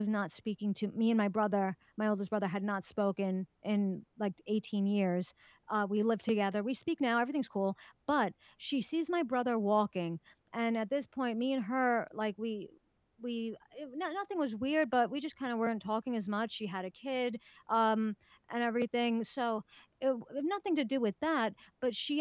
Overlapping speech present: No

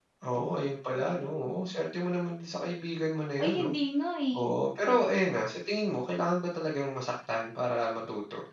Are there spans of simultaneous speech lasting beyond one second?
Yes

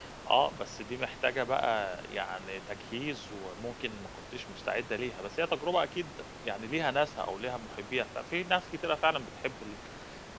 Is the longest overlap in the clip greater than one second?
No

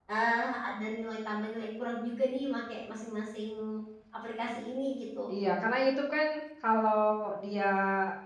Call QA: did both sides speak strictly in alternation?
Yes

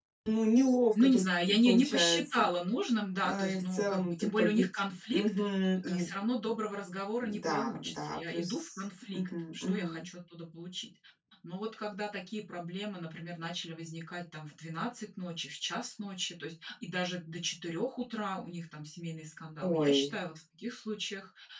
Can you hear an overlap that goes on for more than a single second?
Yes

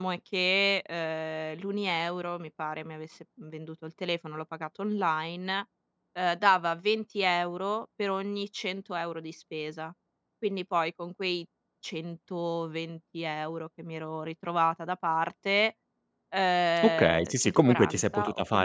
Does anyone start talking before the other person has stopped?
Yes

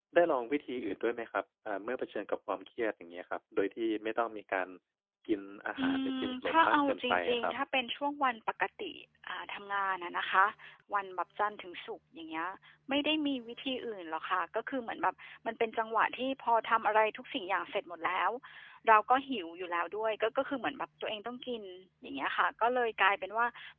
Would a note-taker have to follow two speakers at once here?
Yes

